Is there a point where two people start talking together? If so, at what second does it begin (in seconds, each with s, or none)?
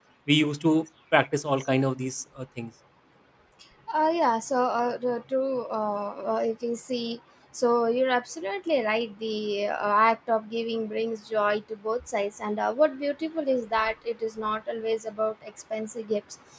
none